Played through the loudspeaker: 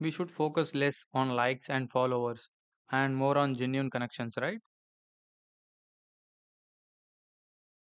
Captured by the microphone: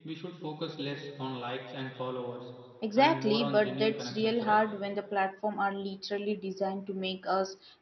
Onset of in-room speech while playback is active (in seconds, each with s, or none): 2.8 s